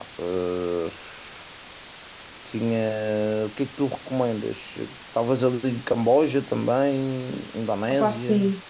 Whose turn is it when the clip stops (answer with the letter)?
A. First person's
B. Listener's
B